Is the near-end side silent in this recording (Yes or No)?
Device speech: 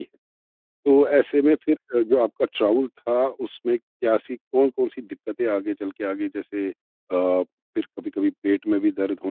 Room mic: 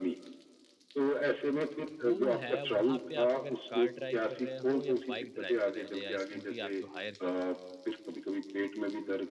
No